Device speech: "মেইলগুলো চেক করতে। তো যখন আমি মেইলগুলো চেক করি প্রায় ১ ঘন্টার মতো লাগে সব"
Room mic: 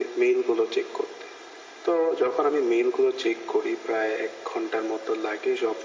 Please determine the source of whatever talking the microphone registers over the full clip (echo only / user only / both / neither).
echo only